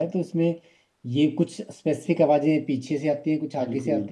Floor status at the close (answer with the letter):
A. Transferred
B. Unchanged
B